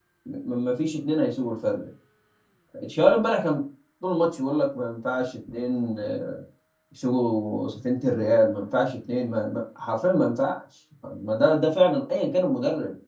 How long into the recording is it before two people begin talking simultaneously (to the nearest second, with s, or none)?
none